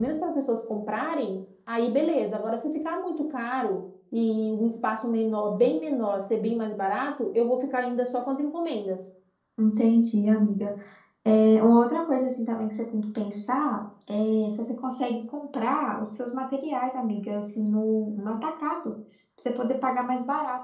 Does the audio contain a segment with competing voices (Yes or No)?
No